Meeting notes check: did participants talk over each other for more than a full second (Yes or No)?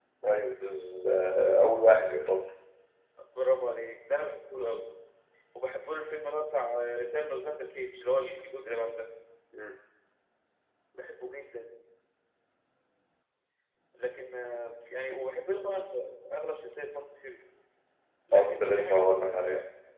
Yes